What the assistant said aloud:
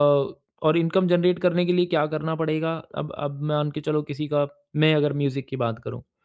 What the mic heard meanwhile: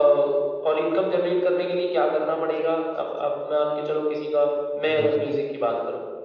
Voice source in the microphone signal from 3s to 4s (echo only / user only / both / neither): echo only